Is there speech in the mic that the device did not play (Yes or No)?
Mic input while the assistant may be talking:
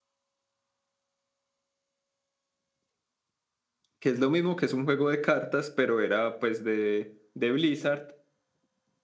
Yes